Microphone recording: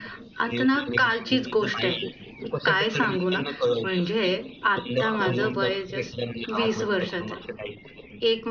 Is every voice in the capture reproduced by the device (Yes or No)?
No